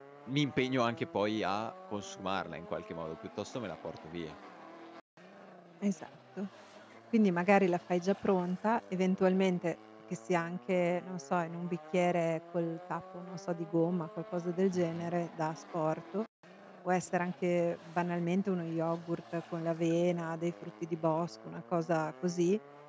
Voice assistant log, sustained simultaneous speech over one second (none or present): none